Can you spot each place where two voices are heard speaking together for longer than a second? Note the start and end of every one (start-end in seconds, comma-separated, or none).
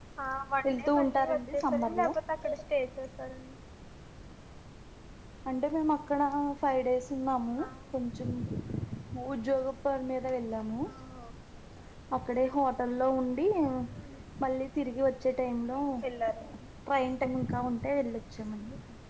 0.7-2.1